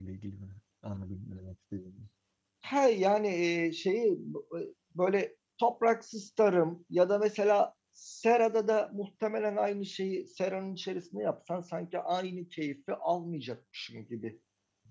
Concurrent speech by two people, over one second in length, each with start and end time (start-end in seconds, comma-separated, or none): none